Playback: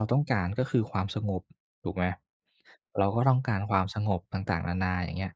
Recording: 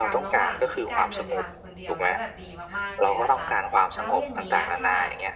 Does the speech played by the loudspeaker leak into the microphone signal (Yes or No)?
Yes